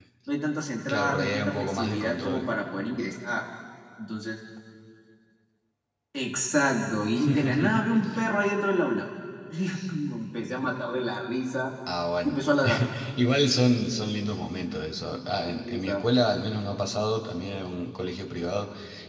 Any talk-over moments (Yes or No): Yes